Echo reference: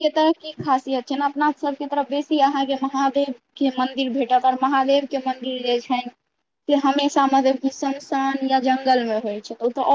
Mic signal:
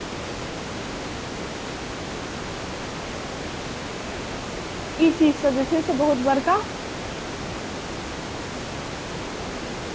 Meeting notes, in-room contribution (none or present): present